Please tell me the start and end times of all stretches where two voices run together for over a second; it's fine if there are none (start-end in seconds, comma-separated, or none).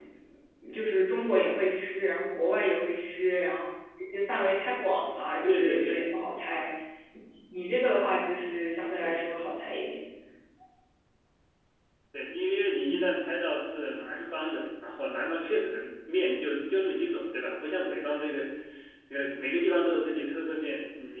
none